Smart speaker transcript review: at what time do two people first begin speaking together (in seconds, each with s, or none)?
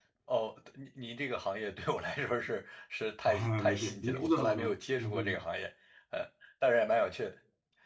3.2 s